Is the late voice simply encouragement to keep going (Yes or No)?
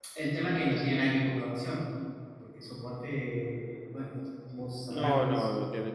No